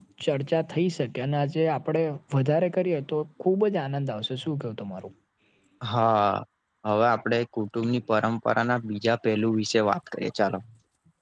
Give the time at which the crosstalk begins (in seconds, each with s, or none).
none